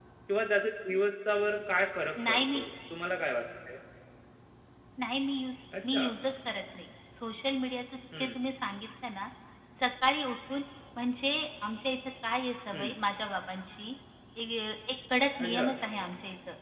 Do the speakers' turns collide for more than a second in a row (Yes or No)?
No